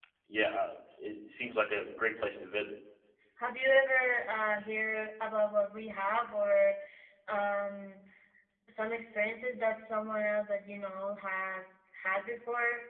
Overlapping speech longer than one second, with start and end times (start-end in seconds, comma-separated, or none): none